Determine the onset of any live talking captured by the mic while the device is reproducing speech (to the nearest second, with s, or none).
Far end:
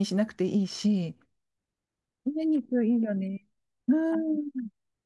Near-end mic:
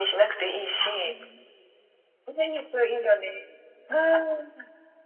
1 s